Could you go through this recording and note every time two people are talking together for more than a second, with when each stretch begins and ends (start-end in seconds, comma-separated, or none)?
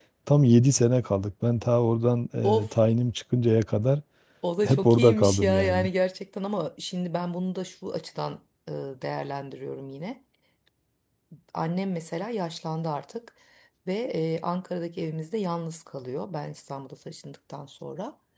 4.6-5.9